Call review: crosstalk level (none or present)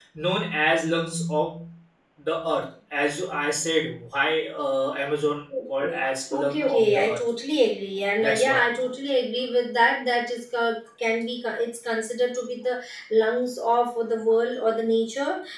present